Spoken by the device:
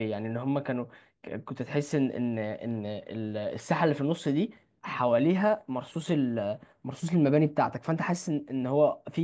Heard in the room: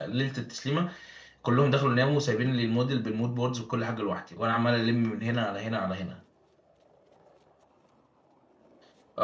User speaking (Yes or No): Yes